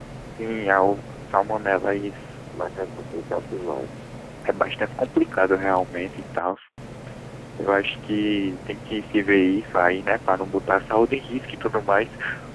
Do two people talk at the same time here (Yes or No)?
No